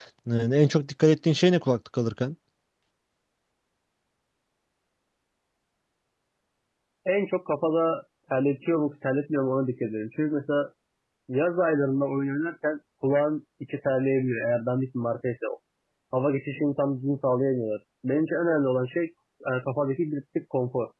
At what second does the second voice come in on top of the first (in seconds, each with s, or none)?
none